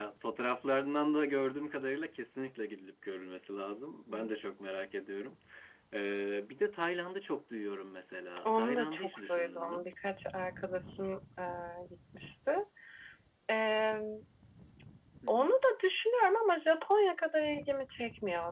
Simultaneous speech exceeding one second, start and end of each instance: 8.4-9.9

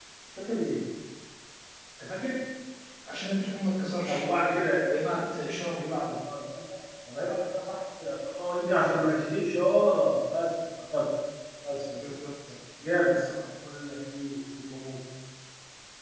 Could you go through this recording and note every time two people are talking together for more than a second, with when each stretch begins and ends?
none

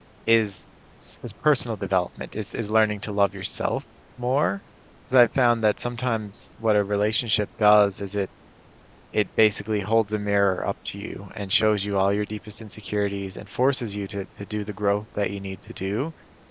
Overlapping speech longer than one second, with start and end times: none

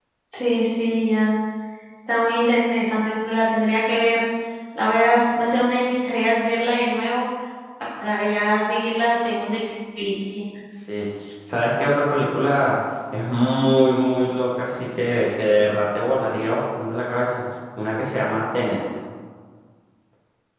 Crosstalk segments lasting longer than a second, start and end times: none

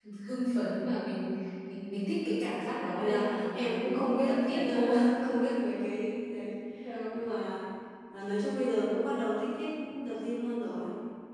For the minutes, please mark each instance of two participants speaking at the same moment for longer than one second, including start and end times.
3.0-4.9

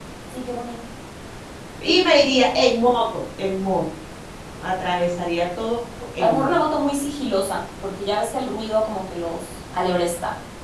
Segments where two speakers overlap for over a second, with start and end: none

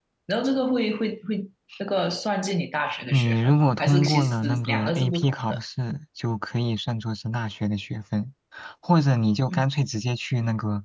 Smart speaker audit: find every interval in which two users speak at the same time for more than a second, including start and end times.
3.1-5.6

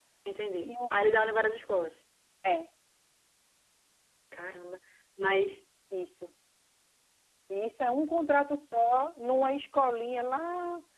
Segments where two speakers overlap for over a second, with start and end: none

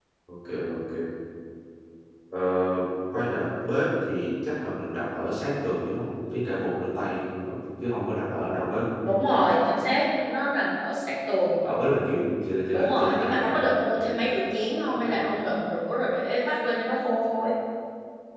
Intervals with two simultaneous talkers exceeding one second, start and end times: 12.7-14.2

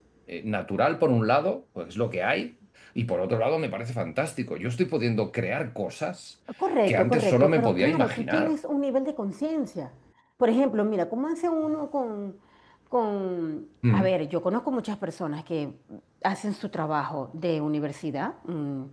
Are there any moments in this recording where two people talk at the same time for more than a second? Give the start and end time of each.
6.9-8.6

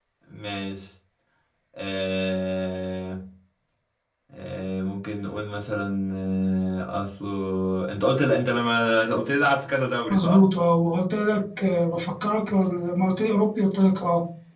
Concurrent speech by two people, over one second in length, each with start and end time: none

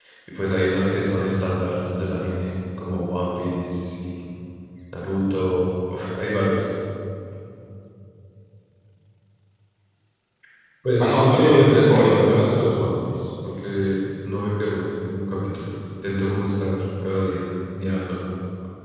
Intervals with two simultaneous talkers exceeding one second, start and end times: 11.0-12.6

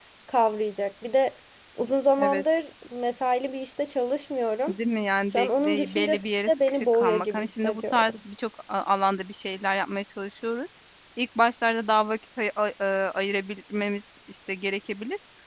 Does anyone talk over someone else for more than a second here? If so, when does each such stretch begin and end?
5.3-8.1

